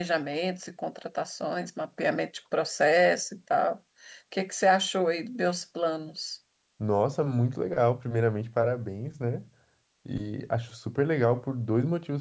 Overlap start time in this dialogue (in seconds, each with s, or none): none